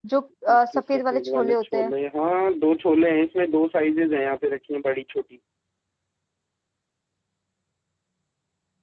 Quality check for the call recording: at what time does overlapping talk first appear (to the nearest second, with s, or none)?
1 s